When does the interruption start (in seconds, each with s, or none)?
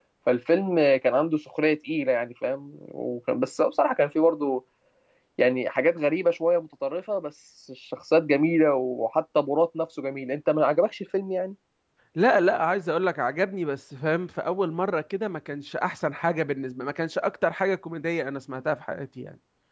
none